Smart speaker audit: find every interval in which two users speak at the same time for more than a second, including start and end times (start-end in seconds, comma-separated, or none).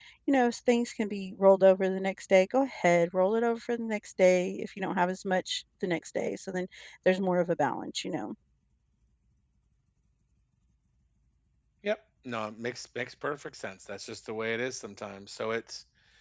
none